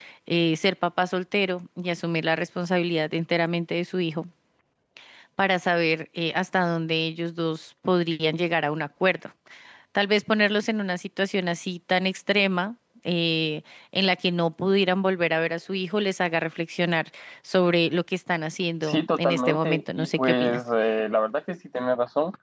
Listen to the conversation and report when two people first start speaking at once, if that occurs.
18.8 s

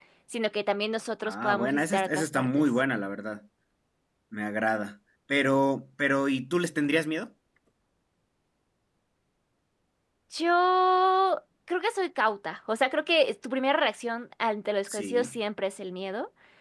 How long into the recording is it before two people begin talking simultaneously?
1.2 s

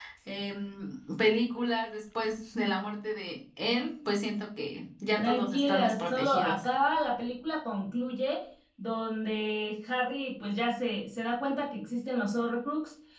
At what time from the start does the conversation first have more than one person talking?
5.2 s

